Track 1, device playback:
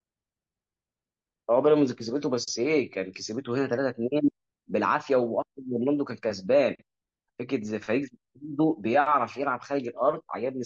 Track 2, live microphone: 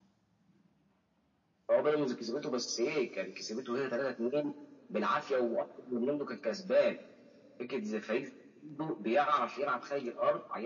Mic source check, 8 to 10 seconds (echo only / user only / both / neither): echo only